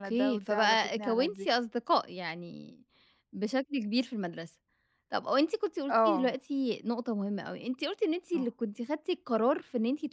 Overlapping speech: Yes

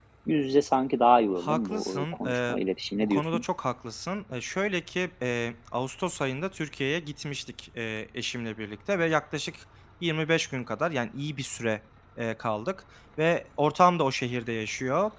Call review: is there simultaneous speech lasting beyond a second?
Yes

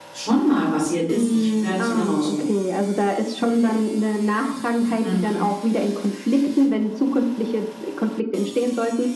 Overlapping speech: Yes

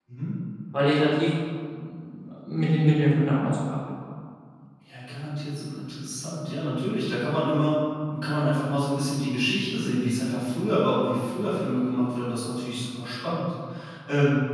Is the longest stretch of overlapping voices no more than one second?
Yes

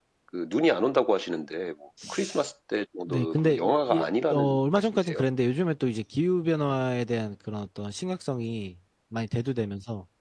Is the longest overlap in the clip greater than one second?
Yes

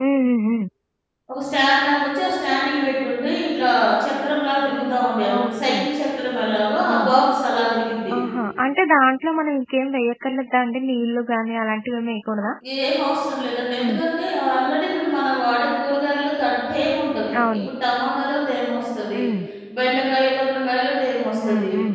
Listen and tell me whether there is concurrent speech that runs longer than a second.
No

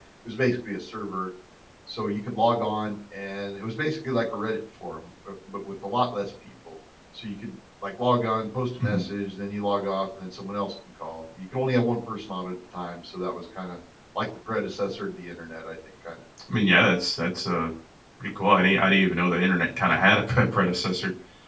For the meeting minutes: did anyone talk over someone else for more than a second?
No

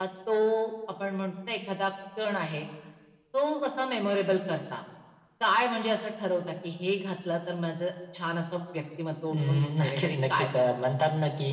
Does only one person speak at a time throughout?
No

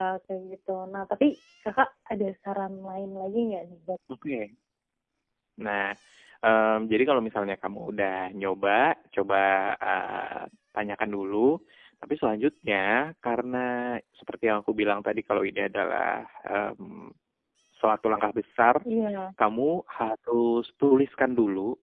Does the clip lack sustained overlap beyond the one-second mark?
Yes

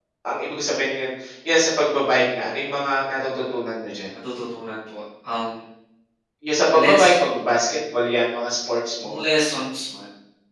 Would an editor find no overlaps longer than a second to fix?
Yes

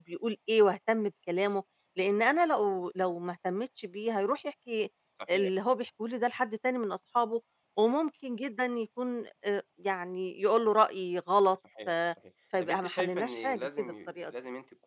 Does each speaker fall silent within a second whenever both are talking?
No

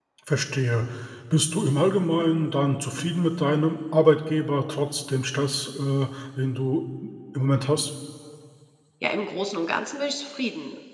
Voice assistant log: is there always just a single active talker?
Yes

